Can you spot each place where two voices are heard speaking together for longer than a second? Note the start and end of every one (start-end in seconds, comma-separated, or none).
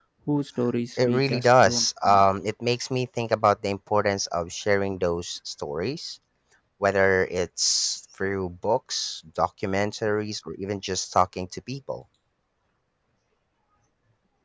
1.0-2.3